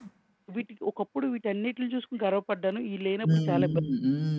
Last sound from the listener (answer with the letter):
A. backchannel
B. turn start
B